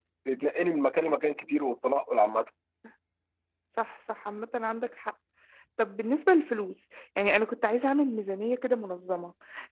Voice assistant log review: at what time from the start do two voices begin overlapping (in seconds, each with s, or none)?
none